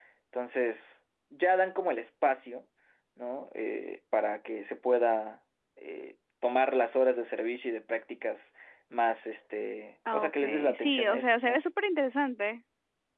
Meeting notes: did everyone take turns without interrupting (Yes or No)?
No